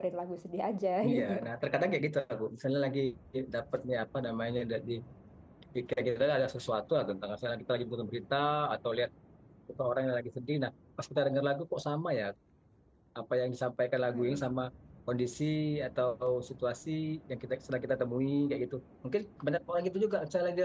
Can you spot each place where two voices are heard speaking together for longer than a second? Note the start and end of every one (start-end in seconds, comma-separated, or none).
none